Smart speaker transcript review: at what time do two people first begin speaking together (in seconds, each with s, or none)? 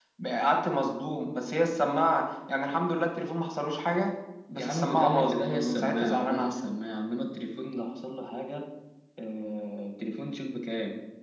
4.6 s